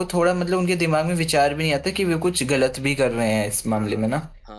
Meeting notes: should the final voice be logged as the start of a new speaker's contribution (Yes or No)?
Yes